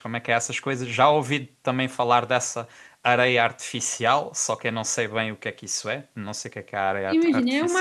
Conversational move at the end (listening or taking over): taking over